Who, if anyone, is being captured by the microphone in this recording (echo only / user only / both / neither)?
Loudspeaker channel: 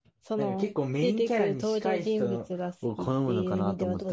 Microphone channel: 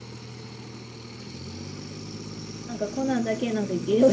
user only